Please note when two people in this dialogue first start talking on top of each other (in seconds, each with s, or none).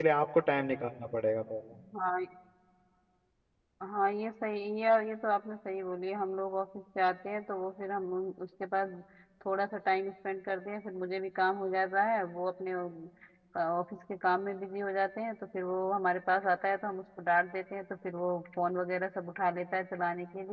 none